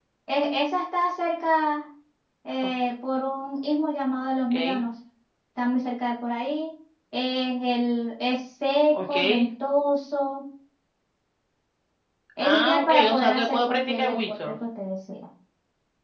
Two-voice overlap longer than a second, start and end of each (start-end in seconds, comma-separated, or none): 12.4-14.4